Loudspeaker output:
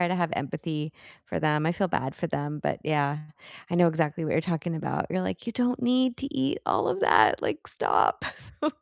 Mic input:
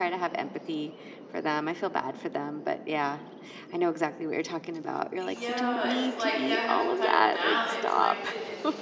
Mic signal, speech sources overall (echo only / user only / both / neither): both